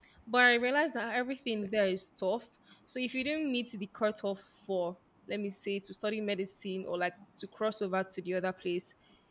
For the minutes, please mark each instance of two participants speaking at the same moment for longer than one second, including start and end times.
none

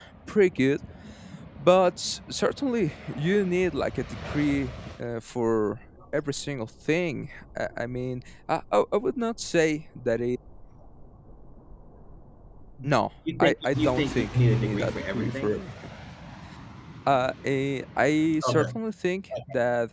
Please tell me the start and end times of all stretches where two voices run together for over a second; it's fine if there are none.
13.4-15.6

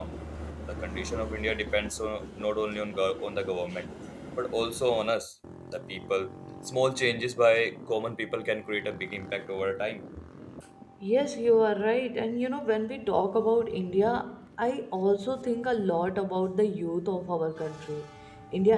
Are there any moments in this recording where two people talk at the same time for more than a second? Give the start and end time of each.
none

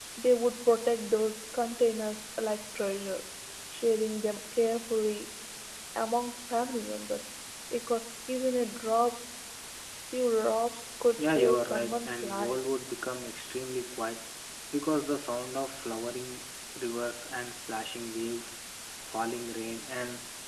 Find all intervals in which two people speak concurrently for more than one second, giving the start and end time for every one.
11.2-12.6

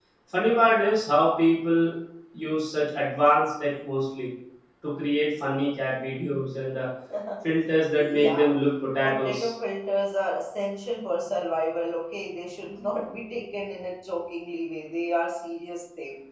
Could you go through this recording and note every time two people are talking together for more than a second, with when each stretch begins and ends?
none

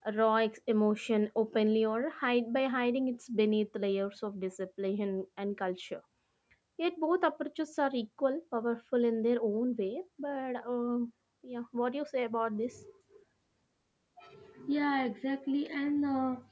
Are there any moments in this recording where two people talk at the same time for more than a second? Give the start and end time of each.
none

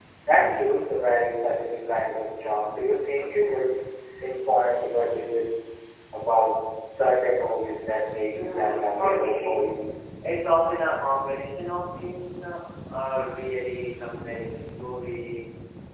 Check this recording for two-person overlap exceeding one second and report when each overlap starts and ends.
8.3-9.6

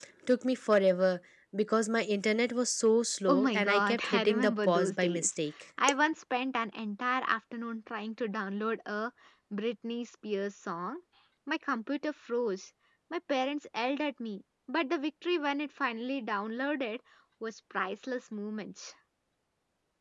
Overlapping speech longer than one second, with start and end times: 3.3-5.3

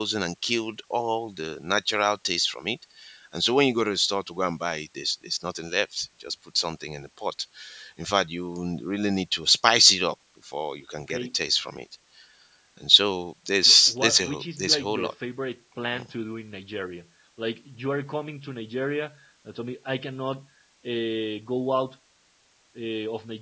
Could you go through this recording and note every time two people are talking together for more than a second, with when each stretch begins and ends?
13.7-15.1

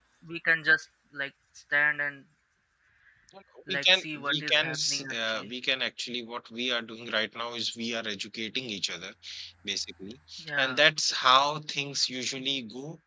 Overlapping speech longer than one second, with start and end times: 3.7-5.5

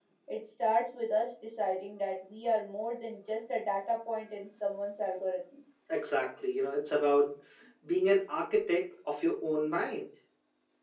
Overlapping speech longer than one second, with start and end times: none

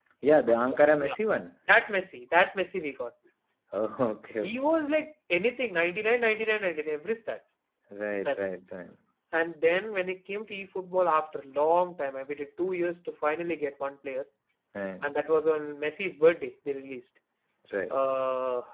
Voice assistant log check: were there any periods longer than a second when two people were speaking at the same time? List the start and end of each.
none

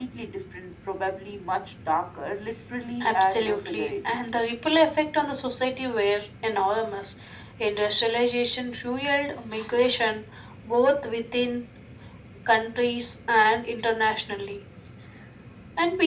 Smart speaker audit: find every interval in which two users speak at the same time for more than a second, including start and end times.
3.0-4.4

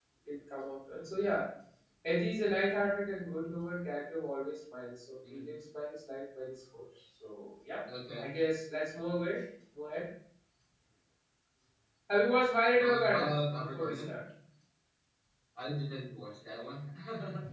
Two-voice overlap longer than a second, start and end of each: 12.8-14.2

